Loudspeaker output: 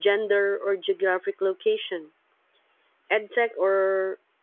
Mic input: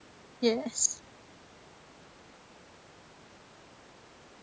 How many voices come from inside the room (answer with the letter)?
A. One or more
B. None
A